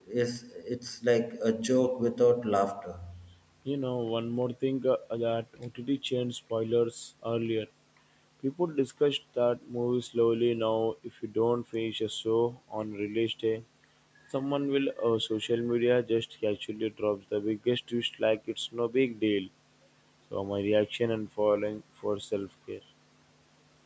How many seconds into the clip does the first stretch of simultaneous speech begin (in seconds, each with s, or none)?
none